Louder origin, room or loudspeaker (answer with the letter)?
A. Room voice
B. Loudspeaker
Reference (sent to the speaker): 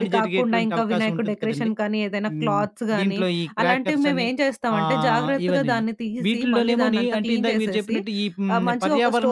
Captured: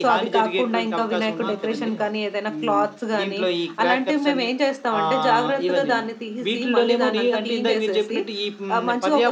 B